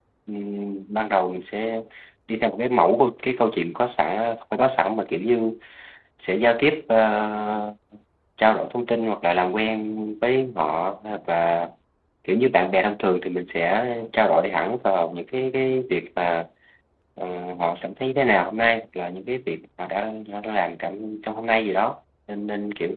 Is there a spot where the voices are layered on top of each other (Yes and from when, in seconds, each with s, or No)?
No